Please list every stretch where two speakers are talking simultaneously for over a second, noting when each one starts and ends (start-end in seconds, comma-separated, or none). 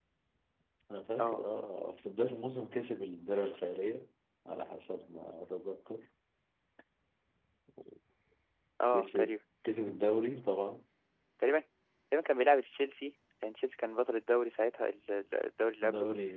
none